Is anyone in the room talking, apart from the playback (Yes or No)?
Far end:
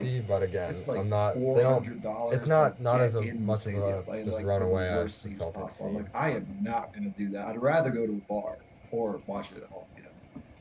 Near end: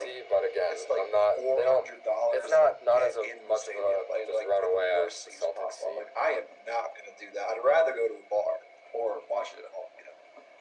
No